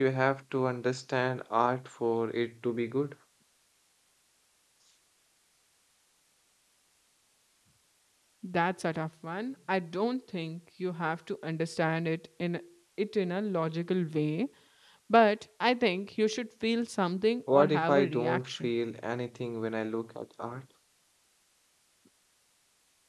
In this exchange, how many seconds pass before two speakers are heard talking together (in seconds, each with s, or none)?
17.5 s